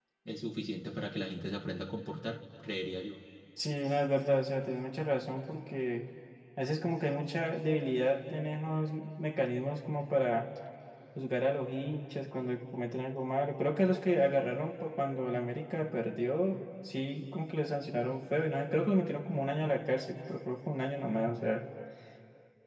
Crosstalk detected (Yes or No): No